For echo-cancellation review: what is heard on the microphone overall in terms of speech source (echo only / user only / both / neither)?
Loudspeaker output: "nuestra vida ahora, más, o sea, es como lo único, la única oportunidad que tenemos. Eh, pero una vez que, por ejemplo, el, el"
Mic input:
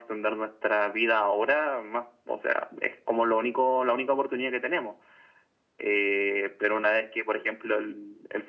echo only